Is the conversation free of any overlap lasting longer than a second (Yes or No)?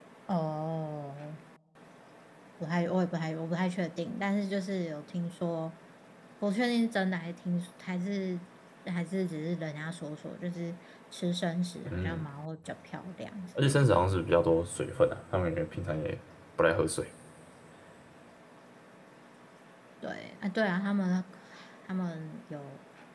Yes